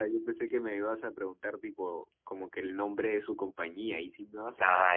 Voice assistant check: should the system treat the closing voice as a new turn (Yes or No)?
Yes